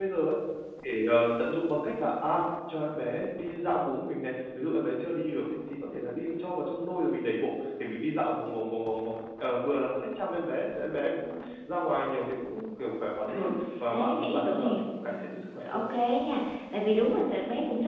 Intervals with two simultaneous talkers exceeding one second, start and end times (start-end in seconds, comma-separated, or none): 13.9-15.8